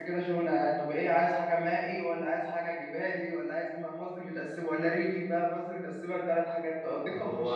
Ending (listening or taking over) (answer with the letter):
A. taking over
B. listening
A